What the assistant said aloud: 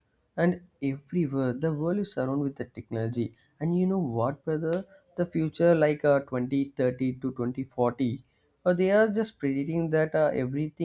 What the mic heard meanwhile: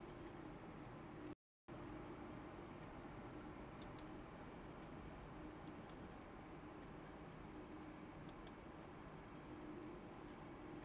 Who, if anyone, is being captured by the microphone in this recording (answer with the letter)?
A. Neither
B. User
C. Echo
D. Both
A